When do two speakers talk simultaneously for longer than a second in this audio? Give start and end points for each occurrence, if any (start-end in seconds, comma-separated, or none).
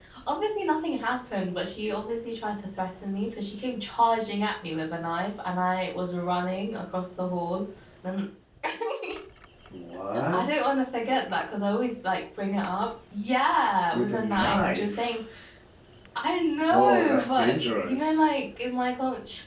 13.9-15.2, 16.6-18.2